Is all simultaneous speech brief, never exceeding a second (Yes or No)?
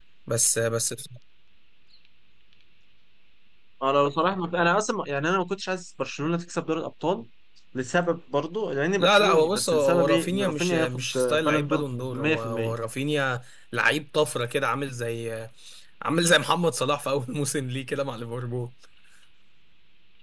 No